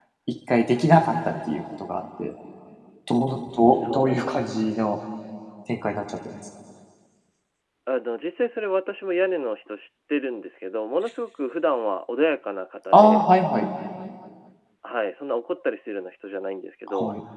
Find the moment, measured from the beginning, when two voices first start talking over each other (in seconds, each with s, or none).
3.6 s